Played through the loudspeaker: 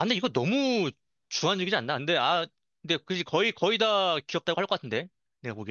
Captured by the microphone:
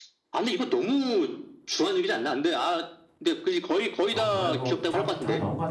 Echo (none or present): present